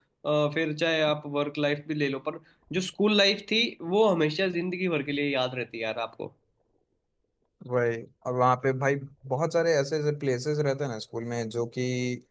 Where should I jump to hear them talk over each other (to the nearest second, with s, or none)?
none